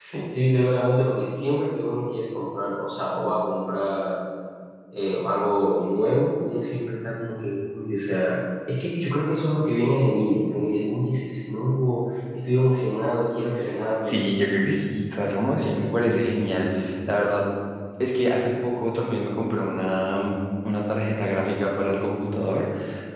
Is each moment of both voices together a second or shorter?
Yes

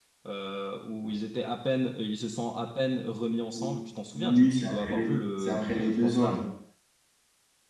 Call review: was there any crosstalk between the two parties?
Yes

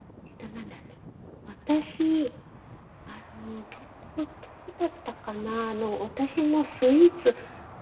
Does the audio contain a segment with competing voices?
No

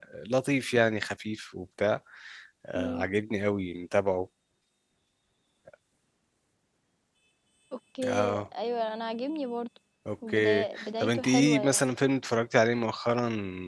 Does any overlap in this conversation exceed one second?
Yes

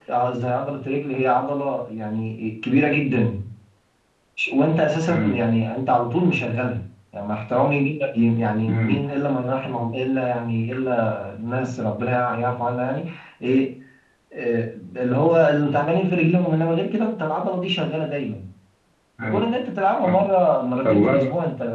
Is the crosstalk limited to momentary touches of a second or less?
Yes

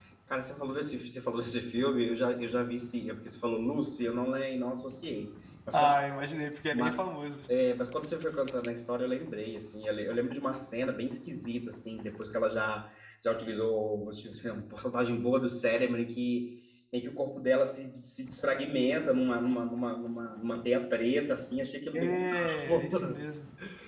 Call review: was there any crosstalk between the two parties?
Yes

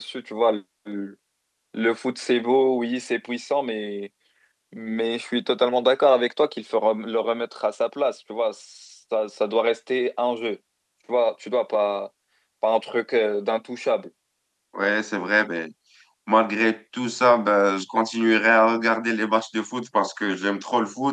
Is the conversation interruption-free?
Yes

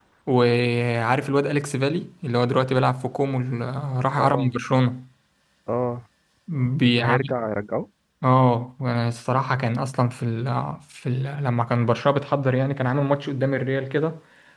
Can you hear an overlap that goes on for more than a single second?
No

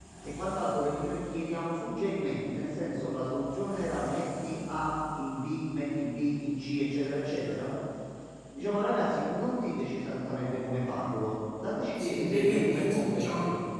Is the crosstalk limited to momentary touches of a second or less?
No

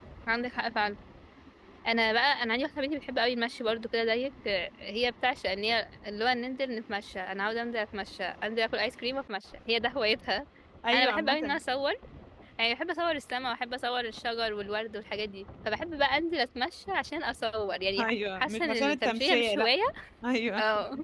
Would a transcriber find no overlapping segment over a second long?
No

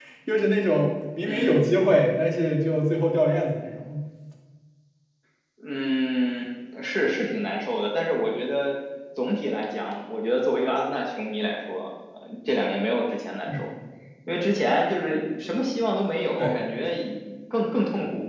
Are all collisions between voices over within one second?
Yes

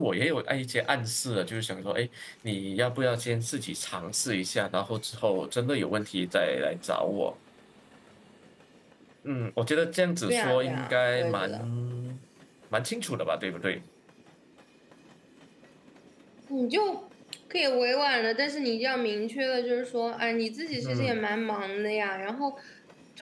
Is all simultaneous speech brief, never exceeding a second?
No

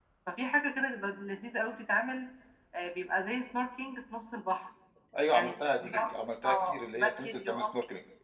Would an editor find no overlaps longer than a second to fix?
No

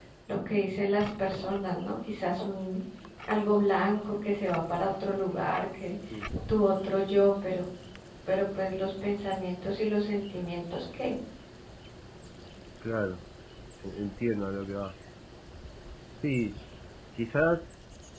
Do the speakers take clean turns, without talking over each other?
Yes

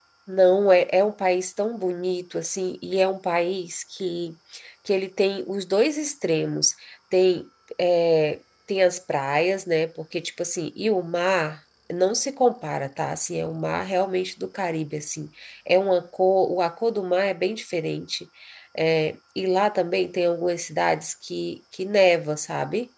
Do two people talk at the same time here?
No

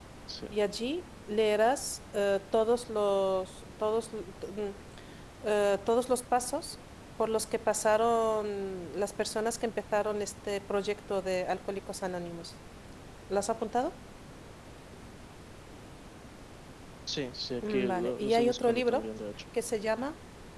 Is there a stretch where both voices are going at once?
Yes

